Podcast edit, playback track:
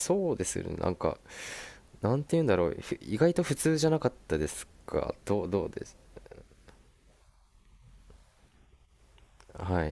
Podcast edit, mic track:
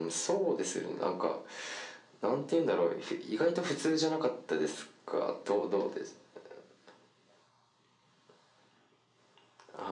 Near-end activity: none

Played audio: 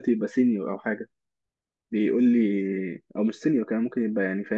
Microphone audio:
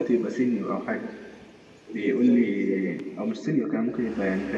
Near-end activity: present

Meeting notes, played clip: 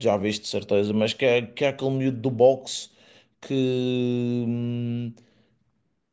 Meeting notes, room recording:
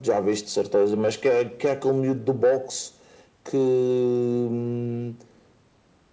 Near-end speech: none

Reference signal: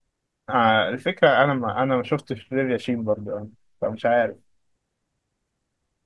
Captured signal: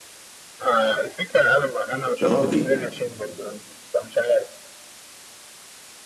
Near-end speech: present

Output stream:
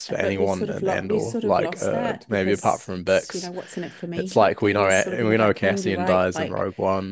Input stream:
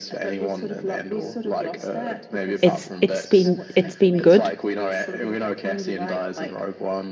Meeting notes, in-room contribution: present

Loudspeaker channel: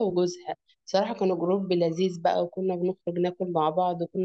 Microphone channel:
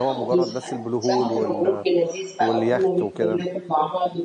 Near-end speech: present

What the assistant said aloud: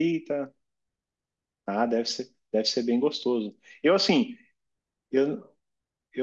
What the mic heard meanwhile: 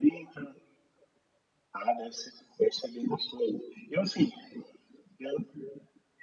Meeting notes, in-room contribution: none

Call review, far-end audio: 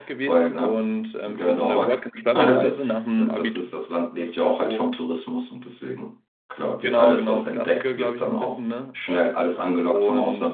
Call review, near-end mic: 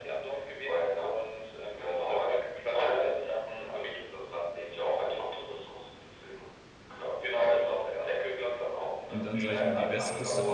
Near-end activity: present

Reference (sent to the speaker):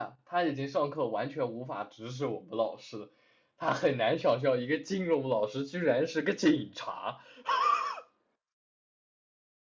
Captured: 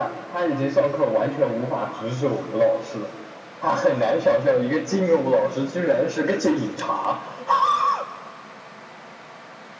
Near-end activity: none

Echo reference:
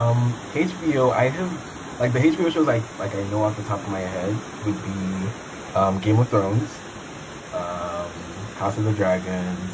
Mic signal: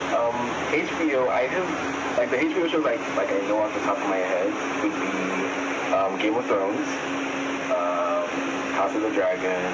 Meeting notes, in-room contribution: none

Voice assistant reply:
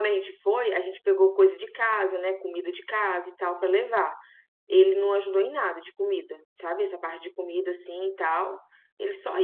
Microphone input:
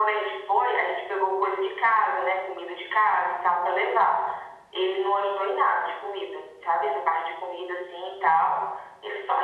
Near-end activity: none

